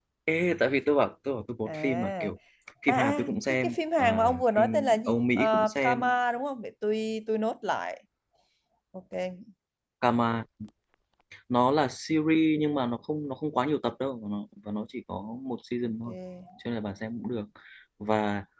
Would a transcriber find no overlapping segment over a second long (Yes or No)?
No